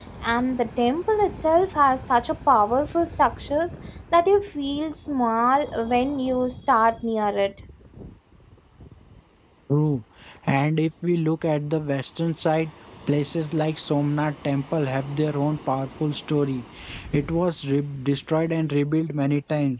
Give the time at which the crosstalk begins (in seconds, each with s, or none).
none